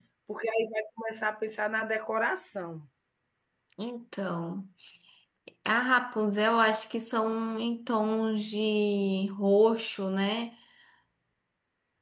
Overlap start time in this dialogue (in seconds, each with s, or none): none